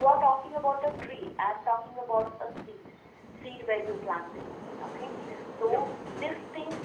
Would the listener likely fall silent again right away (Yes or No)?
Yes